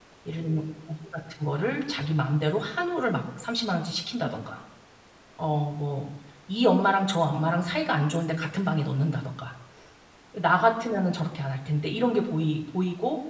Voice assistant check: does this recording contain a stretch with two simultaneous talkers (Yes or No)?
No